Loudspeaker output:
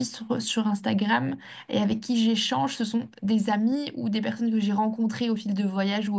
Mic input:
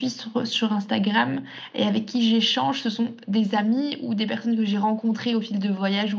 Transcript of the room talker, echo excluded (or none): none